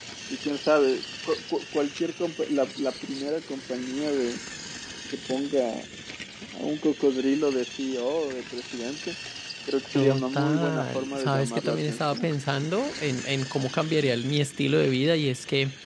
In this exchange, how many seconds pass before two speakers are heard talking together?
10 s

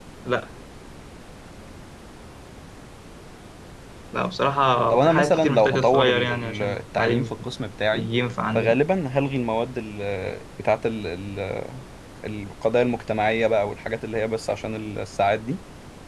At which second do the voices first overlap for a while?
5 s

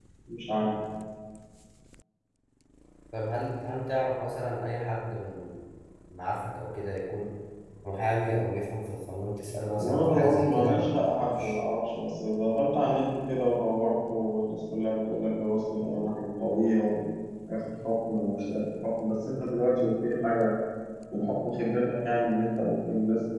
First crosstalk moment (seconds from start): 10 s

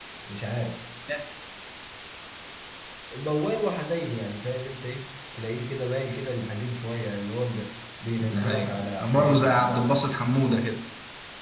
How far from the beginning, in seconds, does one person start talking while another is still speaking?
8 s

